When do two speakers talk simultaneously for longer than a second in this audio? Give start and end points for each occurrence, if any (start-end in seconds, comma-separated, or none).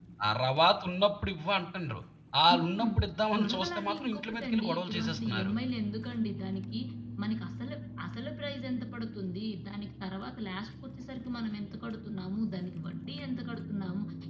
3.4-5.5